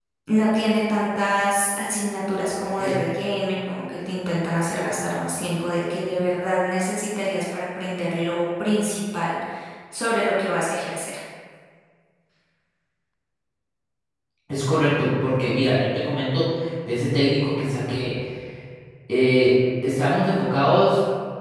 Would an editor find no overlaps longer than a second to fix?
Yes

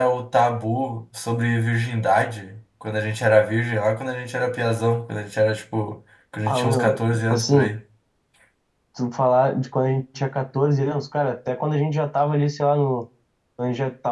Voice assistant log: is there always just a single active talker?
No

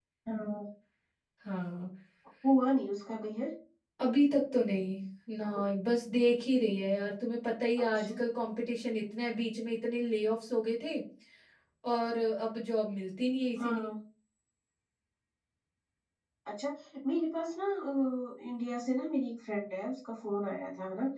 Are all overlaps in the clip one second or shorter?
Yes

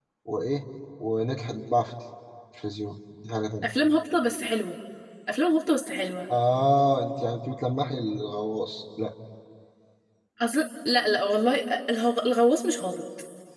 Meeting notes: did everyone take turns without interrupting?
Yes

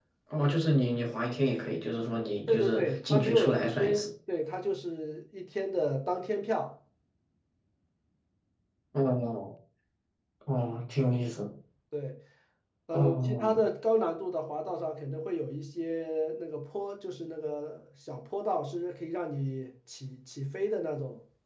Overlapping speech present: Yes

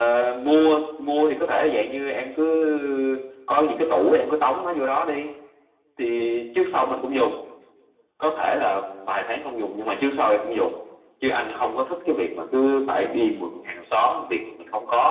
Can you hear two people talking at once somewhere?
No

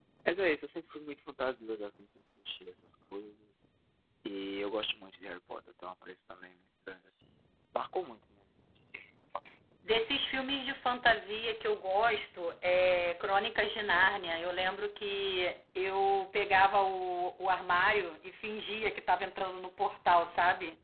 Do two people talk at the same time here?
No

